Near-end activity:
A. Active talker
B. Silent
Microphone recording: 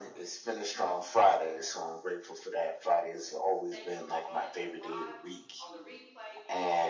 A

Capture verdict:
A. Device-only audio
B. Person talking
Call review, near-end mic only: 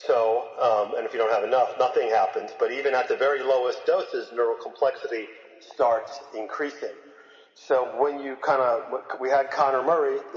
A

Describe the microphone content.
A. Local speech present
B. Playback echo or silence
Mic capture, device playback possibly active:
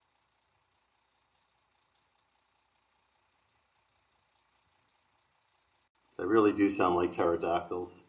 A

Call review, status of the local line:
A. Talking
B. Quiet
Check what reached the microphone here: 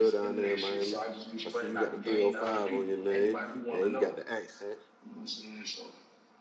A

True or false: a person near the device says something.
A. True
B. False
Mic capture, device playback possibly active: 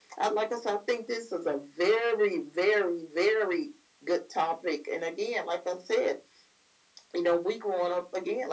B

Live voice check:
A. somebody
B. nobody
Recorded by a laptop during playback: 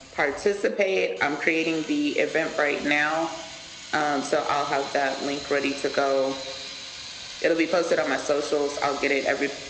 B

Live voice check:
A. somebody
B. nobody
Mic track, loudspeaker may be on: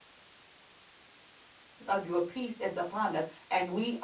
A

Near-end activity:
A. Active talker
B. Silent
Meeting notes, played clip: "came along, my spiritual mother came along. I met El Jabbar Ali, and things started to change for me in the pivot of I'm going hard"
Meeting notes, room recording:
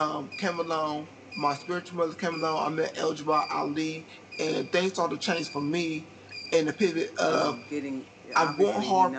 A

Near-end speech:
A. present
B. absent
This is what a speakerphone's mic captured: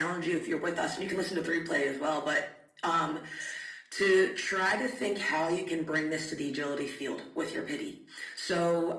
B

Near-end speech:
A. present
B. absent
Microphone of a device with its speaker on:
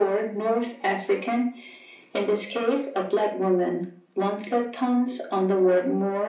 B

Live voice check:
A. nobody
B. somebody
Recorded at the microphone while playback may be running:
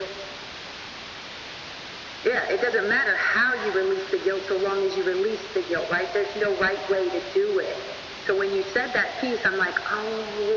A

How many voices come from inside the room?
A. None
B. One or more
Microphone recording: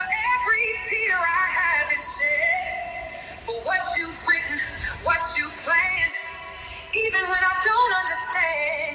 A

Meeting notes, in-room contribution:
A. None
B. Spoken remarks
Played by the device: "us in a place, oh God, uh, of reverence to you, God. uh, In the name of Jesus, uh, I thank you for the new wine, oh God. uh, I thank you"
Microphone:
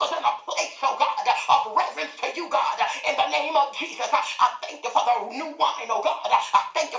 A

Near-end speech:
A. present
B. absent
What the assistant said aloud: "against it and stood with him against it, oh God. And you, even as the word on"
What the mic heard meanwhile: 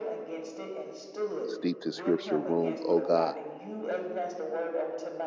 A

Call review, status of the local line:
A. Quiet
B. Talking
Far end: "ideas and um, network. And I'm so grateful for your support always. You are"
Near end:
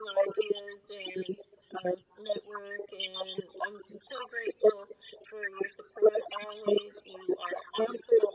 A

